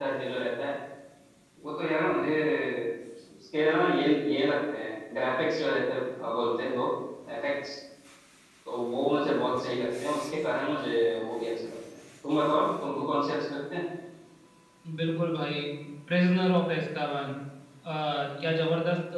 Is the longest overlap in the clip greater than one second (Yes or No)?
No